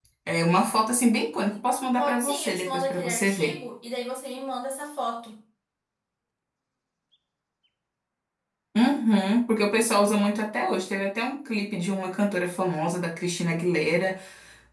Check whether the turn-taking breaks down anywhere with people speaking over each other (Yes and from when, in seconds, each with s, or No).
Yes, from 2.0 s